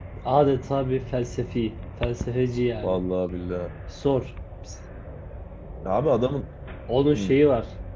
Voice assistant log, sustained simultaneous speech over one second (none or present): none